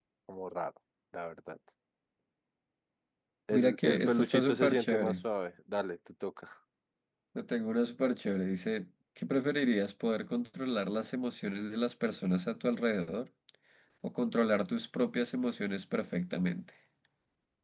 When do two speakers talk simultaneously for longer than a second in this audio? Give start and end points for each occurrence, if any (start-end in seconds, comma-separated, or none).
3.5-5.1